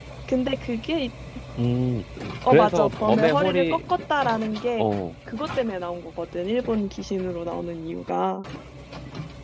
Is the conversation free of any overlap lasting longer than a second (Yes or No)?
No